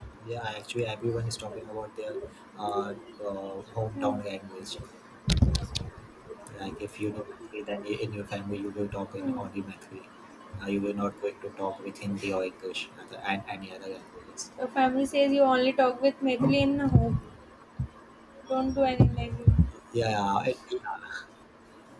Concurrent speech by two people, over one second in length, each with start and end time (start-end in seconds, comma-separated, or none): none